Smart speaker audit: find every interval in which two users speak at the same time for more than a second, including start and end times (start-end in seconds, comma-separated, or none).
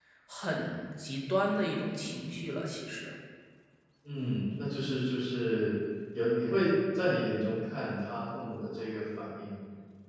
none